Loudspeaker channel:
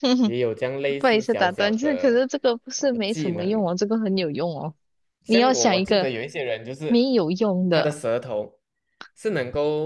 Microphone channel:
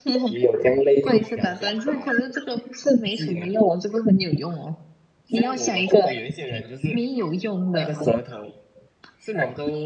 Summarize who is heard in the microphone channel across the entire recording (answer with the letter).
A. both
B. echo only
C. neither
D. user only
B